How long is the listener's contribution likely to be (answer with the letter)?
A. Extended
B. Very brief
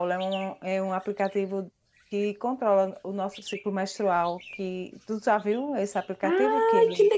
A